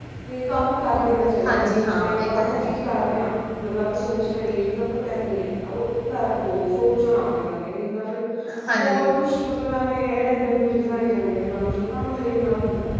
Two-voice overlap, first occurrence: 1.4 s

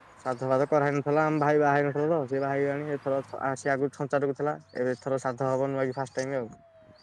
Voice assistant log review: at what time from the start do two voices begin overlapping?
none

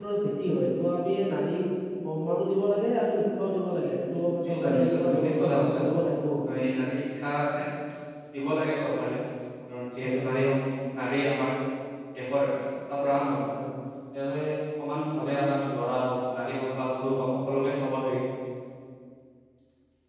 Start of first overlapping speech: 4.5 s

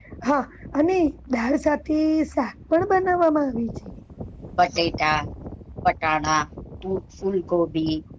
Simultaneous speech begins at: none

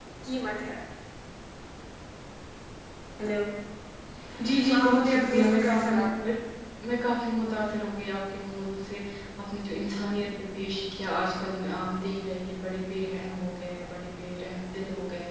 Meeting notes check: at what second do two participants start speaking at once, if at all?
4.7 s

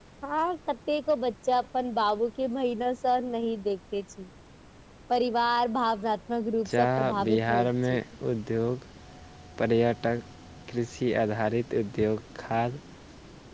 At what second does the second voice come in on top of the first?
6.7 s

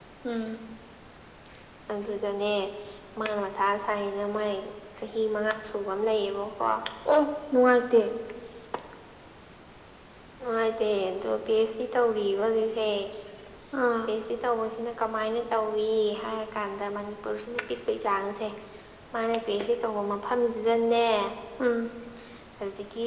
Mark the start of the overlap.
none

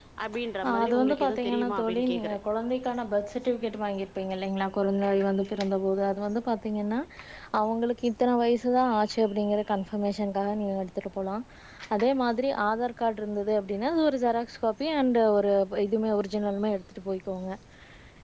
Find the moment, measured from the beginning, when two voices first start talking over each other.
0.7 s

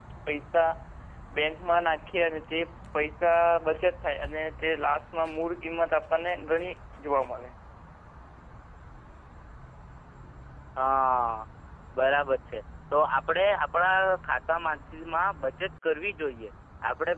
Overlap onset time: none

